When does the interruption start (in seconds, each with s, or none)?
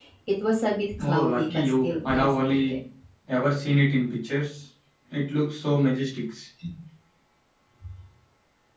1.0 s